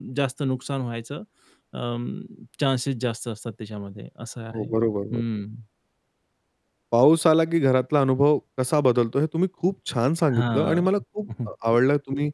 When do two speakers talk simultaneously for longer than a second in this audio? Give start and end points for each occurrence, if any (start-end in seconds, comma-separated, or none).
none